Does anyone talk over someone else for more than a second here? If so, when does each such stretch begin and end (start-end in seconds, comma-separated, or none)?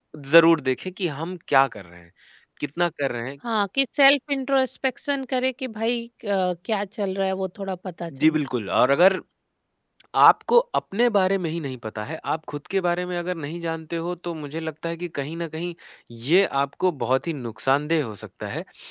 none